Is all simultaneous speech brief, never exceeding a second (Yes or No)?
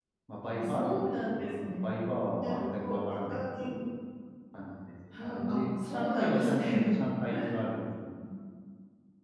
No